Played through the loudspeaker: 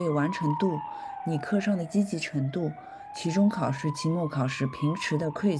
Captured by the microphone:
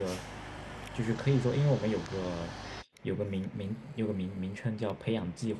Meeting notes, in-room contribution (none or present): present